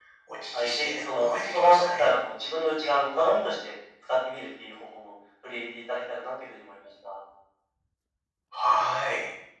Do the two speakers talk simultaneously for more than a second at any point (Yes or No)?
Yes